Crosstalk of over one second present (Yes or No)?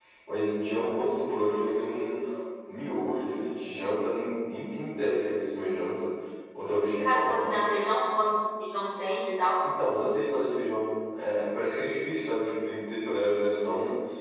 No